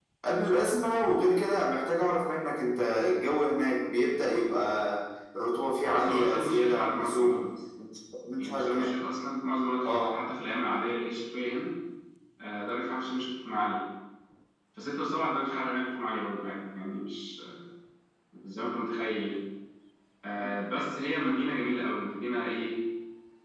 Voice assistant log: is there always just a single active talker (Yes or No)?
No